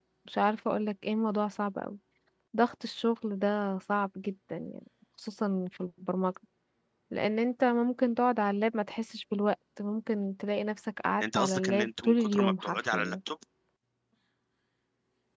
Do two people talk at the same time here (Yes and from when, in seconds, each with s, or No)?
Yes, from 11.2 s